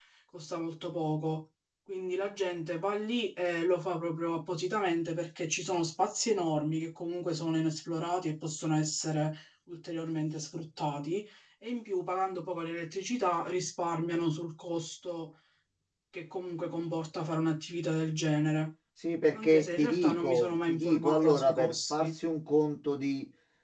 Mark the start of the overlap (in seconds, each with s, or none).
19.3 s